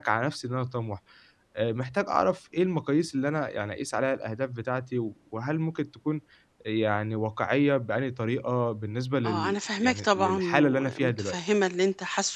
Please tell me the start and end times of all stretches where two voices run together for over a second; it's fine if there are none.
9.2-11.3

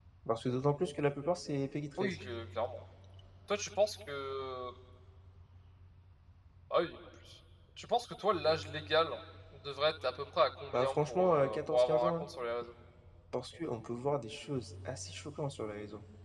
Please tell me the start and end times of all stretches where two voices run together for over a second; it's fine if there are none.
10.7-12.2

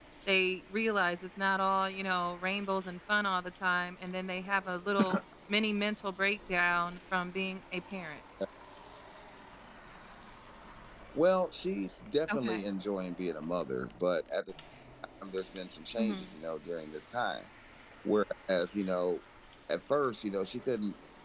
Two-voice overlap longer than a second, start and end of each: none

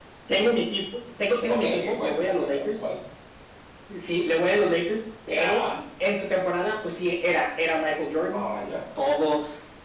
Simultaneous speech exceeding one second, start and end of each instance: 1.5-2.7

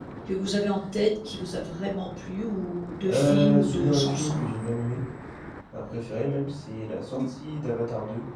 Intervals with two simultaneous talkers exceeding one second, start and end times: 3.0-4.4

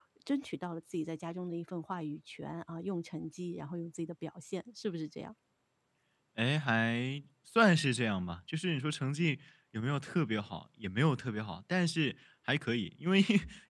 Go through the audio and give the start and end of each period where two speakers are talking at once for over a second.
none

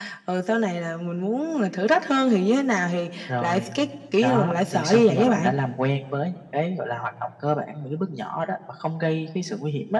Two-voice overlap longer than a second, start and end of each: 4.2-5.5

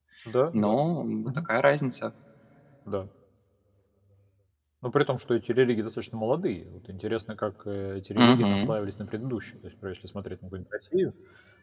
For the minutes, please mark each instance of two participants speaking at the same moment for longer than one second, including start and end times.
none

